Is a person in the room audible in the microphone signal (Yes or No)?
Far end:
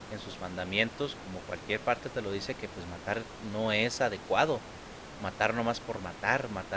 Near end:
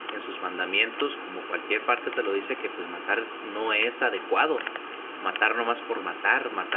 No